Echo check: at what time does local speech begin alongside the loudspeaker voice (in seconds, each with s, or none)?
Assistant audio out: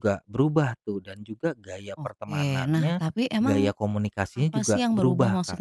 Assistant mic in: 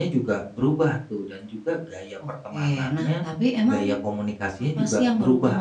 none